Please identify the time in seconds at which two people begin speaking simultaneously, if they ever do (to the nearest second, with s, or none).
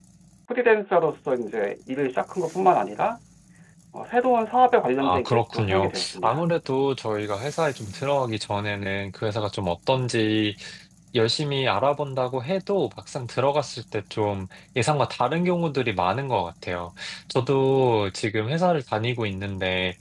5 s